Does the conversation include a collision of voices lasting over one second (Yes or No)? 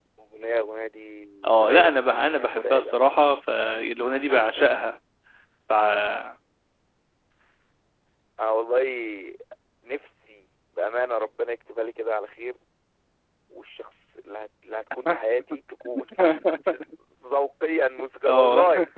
Yes